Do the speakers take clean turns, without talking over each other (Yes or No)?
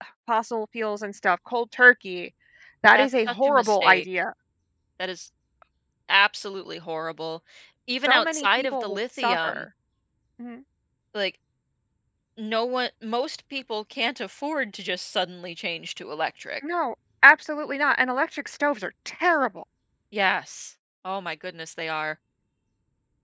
No